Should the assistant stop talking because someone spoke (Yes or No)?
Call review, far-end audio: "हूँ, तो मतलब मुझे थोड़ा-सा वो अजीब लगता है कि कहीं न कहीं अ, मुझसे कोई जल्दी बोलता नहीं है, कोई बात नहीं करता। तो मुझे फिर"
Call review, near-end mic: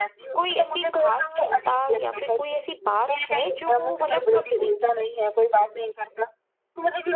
Yes